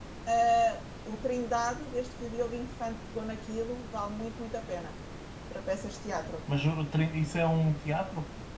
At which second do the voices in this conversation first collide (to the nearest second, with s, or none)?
none